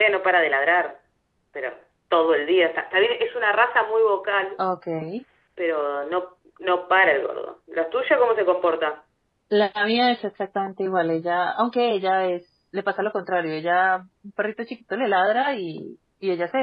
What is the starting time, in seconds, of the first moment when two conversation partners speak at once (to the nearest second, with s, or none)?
none